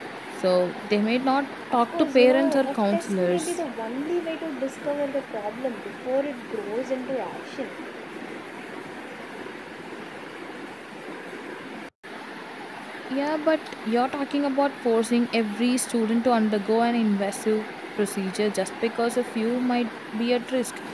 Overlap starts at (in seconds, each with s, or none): 1.7 s